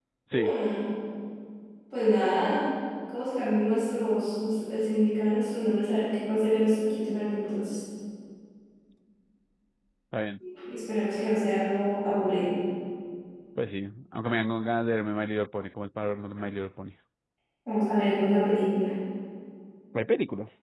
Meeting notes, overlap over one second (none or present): none